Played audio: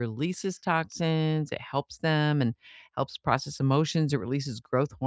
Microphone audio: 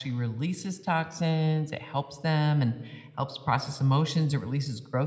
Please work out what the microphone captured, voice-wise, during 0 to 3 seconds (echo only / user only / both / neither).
echo only